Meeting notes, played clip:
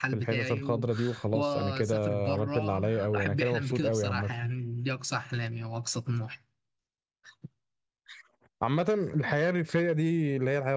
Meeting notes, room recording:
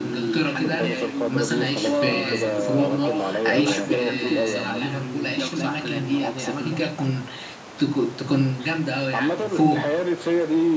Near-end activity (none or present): present